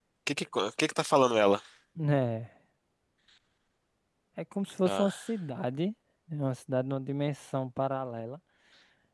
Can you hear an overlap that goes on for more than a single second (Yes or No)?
No